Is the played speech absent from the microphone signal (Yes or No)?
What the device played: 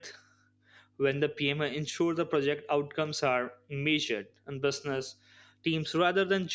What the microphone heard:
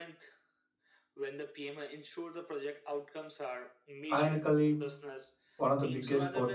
No